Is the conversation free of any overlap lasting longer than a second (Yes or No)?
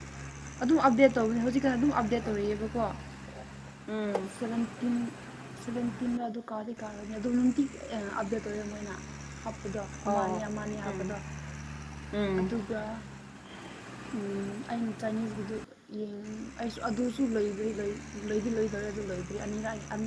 Yes